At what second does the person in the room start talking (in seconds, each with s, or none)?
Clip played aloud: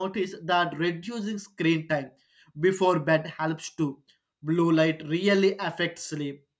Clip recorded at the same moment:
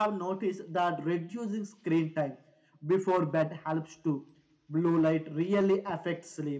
none